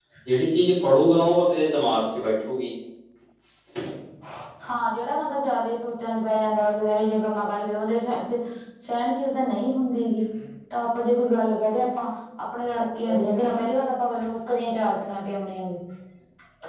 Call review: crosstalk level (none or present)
none